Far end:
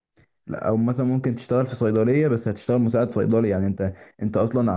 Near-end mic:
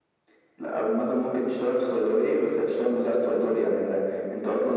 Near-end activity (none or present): none